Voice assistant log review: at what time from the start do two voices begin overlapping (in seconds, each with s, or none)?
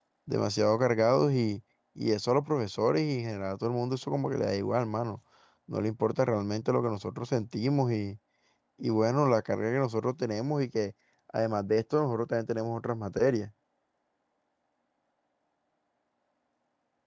none